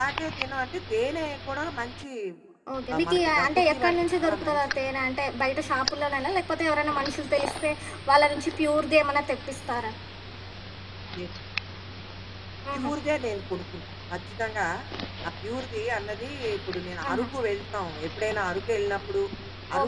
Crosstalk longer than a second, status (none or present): present